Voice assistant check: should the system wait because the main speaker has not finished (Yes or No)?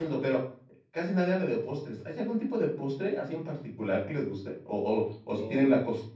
Yes